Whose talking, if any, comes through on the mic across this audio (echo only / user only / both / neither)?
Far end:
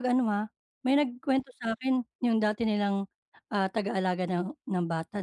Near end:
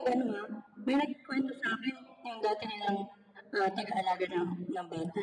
echo only